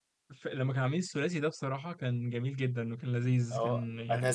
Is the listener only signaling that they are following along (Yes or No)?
No